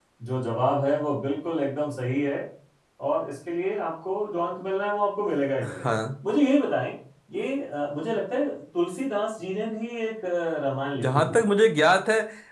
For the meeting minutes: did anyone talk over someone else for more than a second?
No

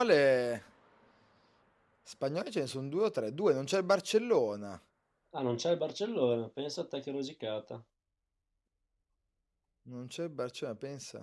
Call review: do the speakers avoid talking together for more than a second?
Yes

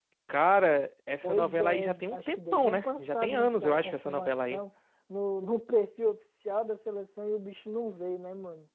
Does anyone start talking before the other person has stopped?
Yes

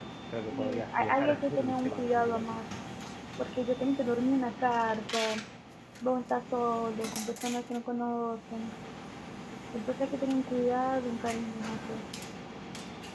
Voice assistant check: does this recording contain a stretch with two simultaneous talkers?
Yes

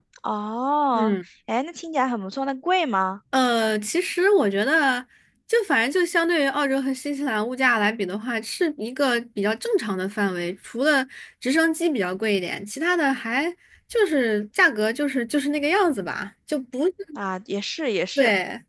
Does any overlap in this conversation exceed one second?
No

